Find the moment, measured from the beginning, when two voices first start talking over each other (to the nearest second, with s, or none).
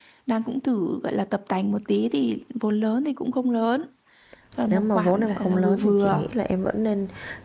5 s